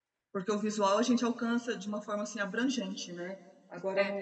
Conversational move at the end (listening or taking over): listening